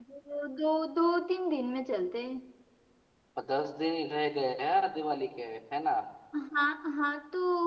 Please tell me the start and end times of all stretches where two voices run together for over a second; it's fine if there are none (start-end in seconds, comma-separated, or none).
none